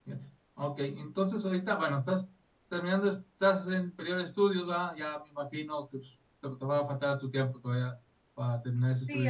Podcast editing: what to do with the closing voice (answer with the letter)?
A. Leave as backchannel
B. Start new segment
B